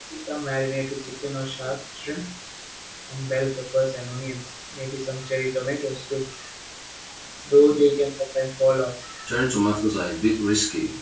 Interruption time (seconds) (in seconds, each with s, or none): none